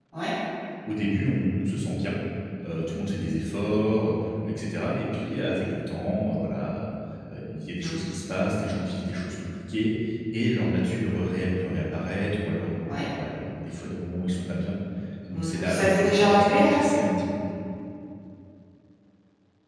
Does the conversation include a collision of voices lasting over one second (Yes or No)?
Yes